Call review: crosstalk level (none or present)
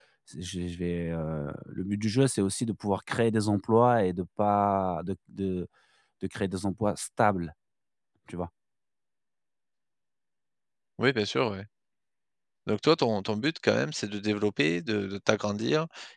none